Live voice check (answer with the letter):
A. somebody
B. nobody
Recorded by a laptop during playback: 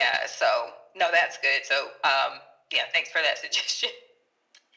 B